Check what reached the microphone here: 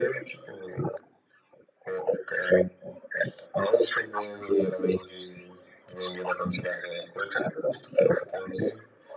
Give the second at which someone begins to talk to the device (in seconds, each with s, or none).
none